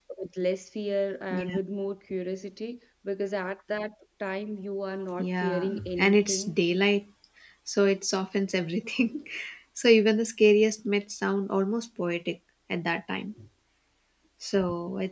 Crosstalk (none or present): present